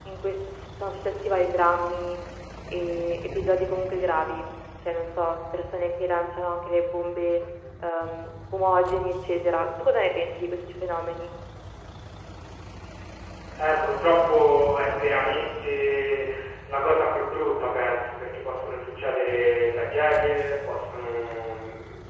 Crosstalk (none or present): none